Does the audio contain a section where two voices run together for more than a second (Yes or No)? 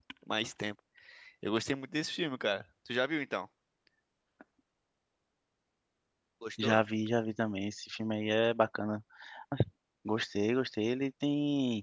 No